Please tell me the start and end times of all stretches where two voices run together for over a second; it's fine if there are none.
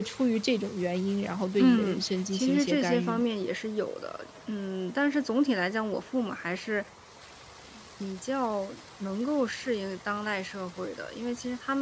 1.6-3.2

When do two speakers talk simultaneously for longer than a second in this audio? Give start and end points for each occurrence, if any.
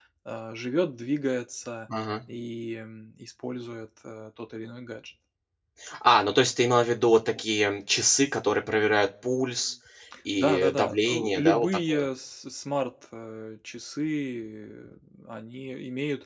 10.4-12.1

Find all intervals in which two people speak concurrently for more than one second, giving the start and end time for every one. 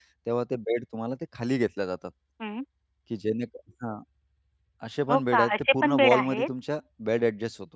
5.1-6.5

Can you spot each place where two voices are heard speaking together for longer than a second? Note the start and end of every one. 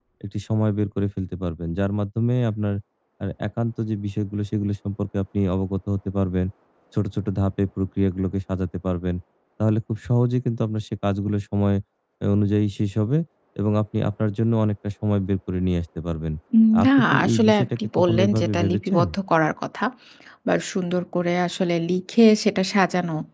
16.8-19.0

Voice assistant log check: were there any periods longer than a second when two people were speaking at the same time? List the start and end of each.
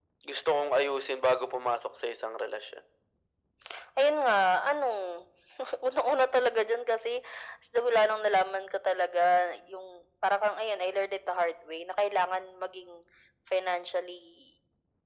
none

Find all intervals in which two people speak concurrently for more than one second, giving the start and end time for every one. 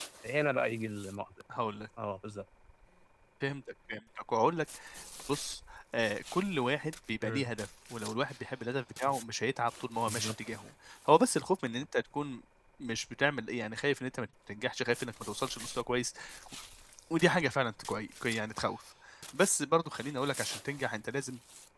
none

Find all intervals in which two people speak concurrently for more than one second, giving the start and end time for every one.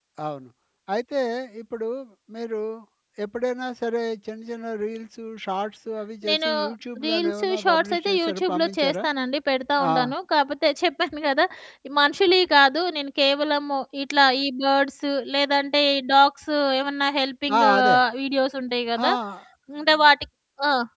7.0-9.0

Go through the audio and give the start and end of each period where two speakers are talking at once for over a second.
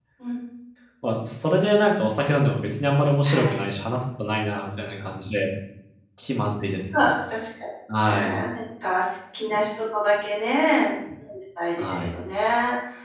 none

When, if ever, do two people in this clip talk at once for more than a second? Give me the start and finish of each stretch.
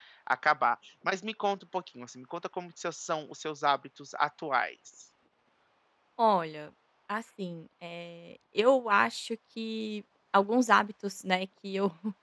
none

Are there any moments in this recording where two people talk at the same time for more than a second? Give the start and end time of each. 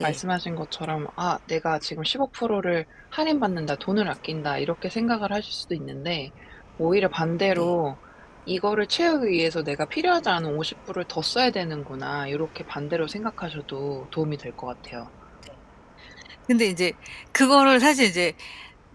none

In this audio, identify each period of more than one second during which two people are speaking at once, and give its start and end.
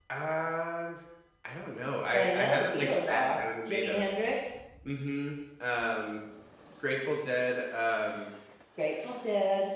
2.1-4.0

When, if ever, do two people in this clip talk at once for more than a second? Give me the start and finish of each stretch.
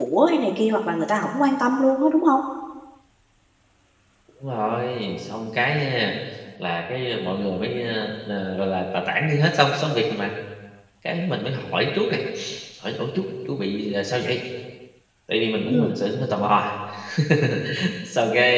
none

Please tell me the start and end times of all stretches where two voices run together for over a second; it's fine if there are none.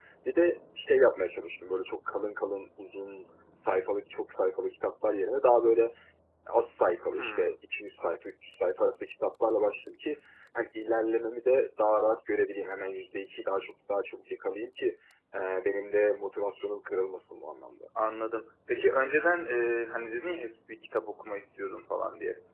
none

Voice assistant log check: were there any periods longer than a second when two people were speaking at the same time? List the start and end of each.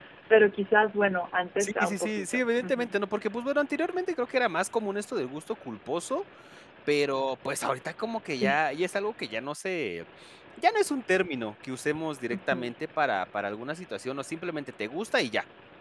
1.6-2.9

